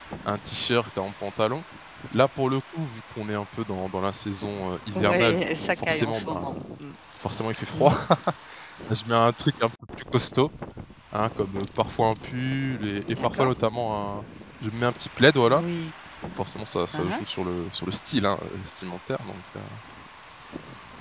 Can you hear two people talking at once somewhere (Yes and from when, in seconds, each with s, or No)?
Yes, from 5.0 s